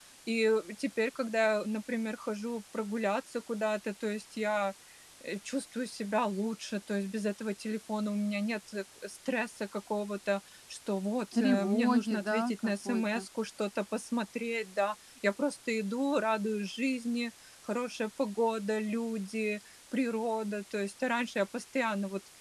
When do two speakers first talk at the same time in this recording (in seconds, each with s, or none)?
11.3 s